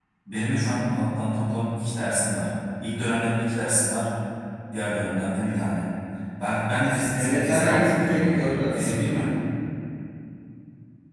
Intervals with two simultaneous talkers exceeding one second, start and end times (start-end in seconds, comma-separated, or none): 7.1-9.3